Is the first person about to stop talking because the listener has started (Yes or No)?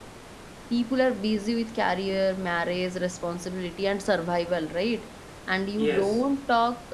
No